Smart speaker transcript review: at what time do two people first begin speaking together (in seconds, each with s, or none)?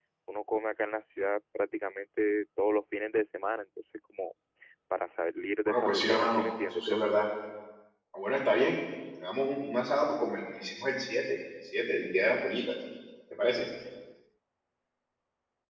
5.7 s